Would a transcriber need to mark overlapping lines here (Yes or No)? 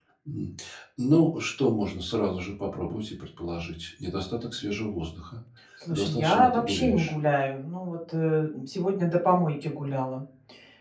Yes